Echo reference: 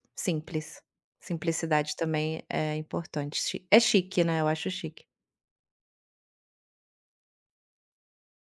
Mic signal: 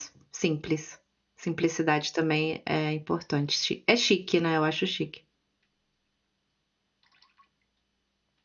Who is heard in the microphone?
echo only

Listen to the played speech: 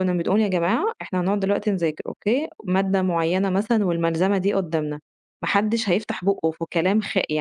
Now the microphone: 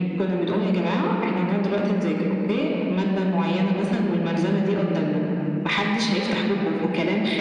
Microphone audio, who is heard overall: echo only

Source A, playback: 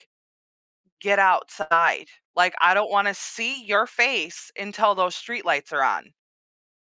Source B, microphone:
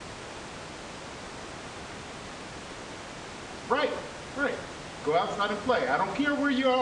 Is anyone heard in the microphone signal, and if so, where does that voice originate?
user only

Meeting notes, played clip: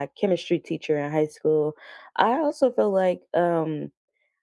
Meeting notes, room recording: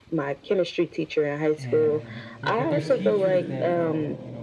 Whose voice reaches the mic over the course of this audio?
both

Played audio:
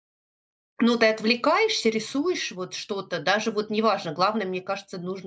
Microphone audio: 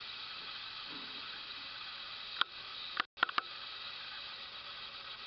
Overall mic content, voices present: neither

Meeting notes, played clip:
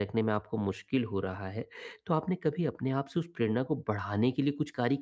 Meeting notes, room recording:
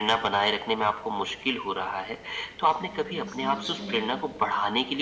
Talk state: both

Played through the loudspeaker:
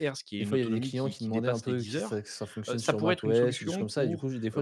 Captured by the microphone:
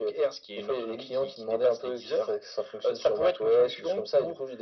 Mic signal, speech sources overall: echo only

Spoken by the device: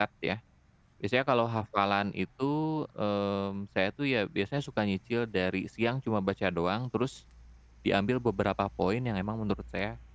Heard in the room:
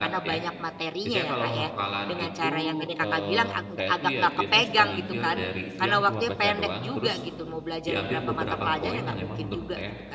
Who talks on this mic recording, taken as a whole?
both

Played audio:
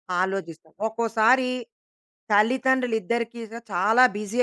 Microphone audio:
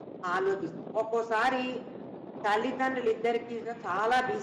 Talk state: echo only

